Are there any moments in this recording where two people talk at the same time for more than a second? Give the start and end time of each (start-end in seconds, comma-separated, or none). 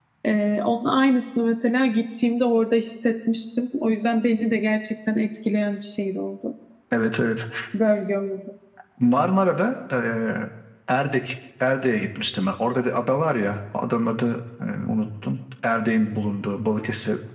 none